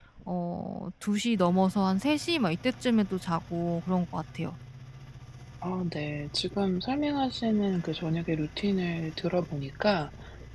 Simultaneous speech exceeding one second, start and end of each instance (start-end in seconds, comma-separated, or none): none